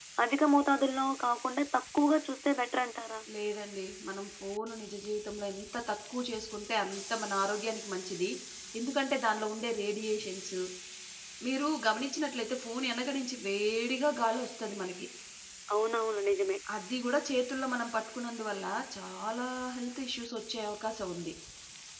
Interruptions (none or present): none